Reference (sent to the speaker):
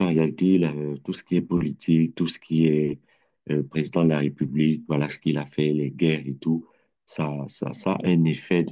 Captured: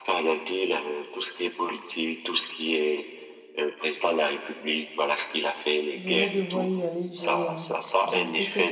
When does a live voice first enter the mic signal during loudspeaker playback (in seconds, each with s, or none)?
6.0 s